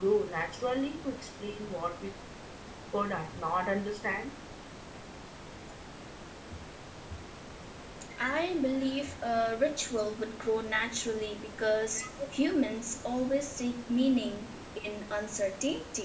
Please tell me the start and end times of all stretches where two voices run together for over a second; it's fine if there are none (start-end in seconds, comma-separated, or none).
none